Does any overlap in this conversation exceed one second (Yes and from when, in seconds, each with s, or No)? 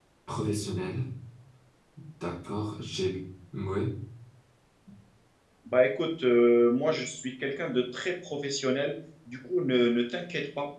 No